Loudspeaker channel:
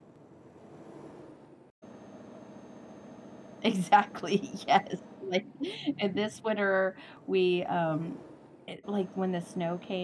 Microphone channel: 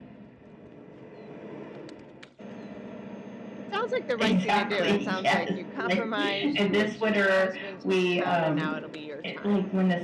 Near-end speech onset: 3.6 s

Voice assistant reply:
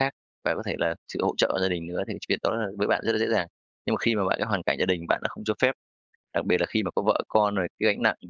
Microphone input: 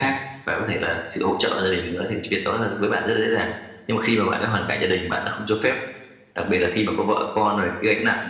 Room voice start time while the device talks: none

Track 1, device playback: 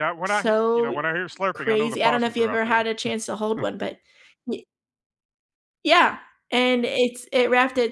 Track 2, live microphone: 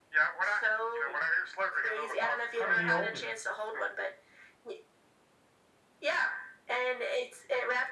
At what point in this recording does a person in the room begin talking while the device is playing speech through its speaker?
2.6 s

